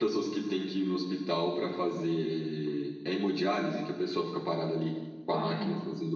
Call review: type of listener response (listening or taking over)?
listening